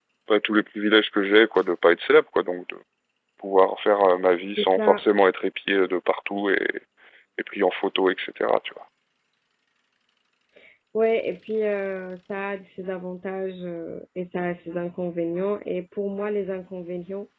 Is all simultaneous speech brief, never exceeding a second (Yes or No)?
Yes